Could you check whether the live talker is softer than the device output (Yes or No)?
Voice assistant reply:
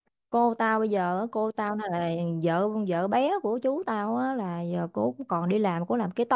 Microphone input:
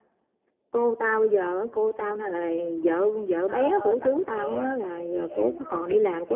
Yes